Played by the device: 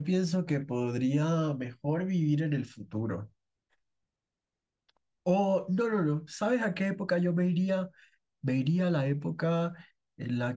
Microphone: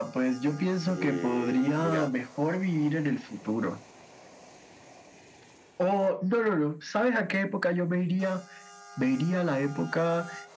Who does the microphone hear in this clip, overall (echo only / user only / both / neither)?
both